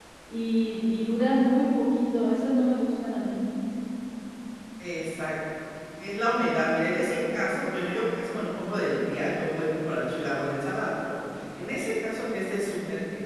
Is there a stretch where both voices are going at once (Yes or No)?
No